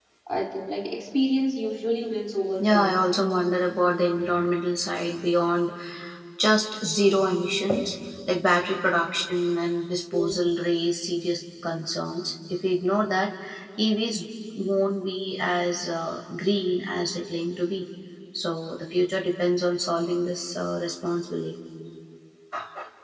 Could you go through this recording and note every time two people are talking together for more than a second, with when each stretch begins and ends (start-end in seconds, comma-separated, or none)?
none